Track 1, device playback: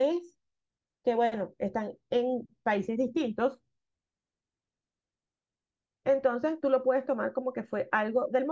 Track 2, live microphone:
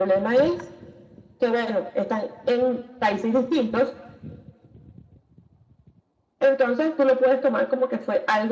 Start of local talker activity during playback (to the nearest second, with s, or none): none